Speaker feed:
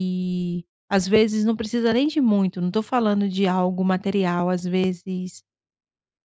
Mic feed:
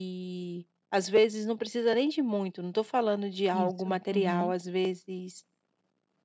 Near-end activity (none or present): present